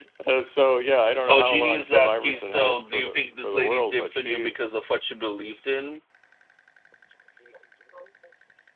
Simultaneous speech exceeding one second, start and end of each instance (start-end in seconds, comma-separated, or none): 1.3-4.5